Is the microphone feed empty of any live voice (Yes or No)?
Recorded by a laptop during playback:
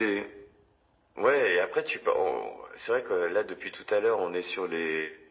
Yes